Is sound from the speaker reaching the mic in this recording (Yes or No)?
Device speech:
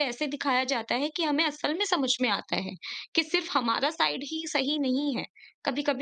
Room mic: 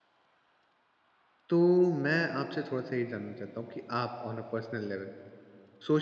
No